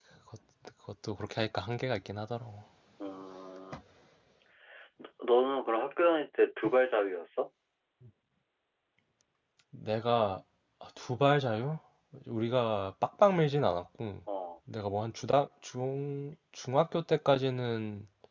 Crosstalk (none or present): none